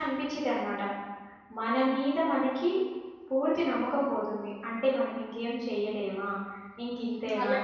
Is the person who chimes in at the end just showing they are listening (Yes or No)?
No